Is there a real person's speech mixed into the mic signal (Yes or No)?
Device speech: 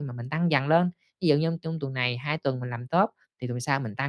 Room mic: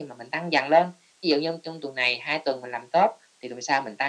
No